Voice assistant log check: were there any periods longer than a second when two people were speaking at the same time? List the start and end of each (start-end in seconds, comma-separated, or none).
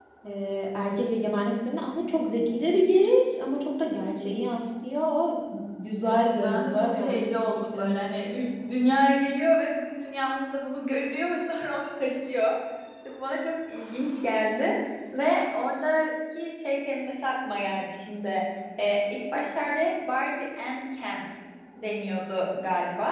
6.0-8.3